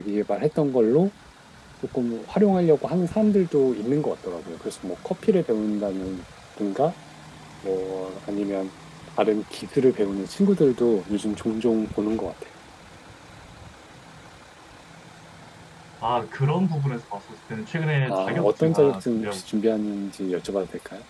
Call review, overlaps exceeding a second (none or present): present